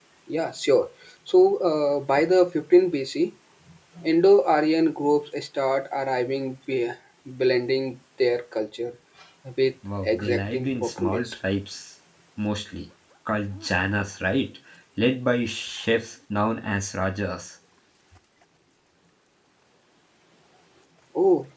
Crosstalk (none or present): present